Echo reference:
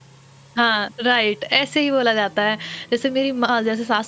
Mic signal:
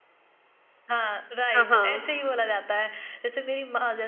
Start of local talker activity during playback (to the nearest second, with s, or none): 2 s